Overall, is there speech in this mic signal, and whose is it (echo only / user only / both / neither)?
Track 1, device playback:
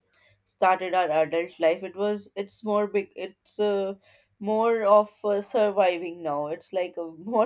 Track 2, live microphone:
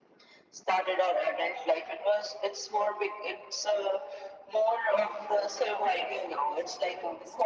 both